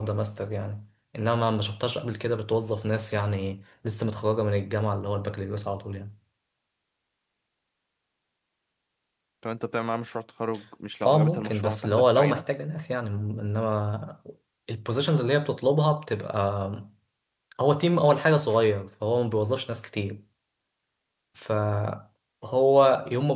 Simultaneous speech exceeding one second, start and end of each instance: 11.1-12.4

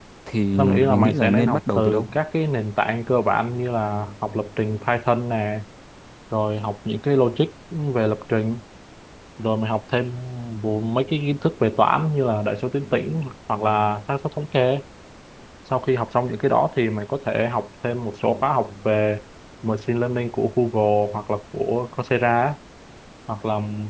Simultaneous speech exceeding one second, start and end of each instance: 0.6-2.2

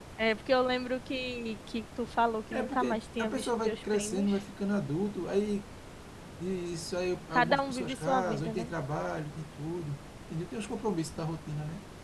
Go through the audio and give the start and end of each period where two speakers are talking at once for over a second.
2.5-4.3, 7.3-8.7

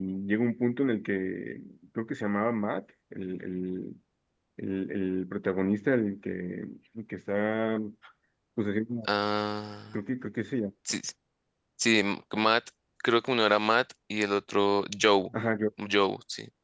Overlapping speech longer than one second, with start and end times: none

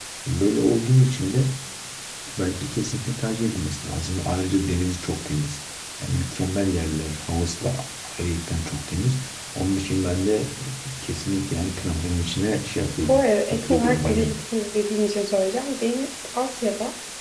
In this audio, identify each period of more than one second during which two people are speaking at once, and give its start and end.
13.0-14.3

